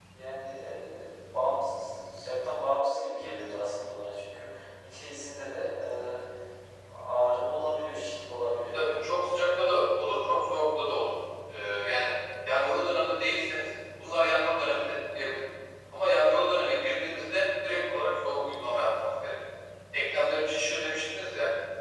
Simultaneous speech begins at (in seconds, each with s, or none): none